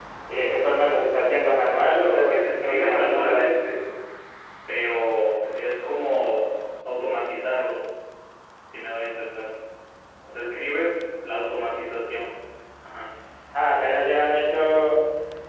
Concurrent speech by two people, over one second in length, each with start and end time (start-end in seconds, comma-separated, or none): 2.0-3.4